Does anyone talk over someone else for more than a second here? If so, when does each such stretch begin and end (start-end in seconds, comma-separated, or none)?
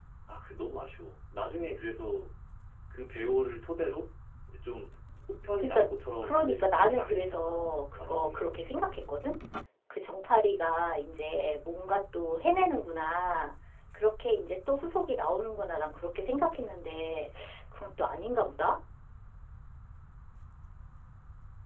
6.2-8.7